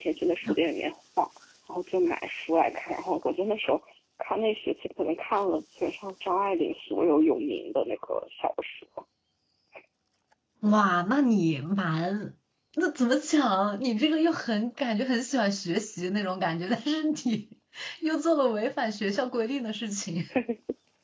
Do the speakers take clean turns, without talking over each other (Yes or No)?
Yes